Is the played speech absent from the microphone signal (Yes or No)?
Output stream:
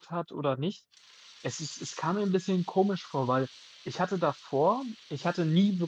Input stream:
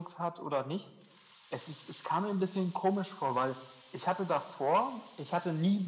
No